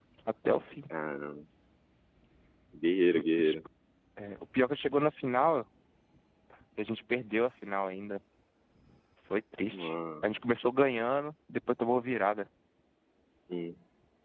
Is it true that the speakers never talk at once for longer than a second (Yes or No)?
Yes